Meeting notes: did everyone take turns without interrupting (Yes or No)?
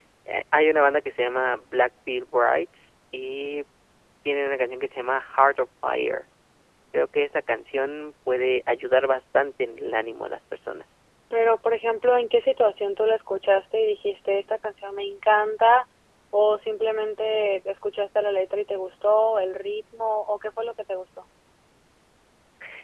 Yes